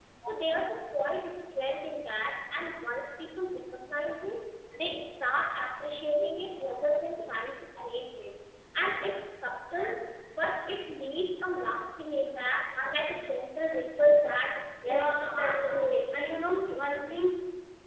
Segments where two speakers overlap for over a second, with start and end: 14.9-16.8

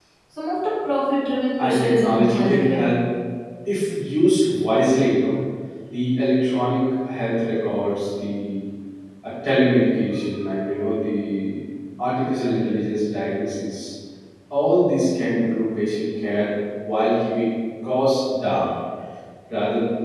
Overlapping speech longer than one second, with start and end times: 1.6-2.9

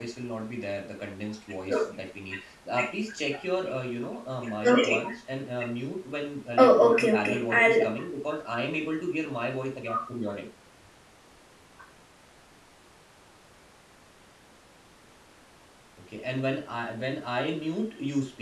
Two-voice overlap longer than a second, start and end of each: 6.6-7.8

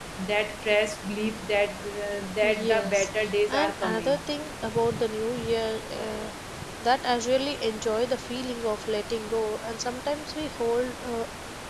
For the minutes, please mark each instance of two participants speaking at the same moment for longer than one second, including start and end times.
2.4-4.2

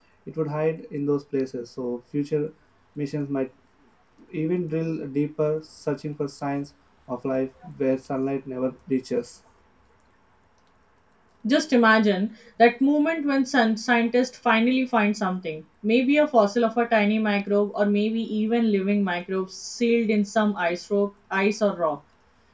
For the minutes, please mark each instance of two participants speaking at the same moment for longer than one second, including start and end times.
none

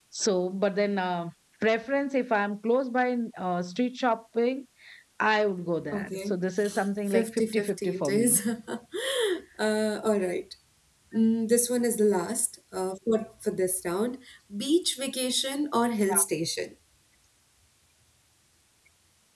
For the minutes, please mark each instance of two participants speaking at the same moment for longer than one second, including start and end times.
7.1-8.4

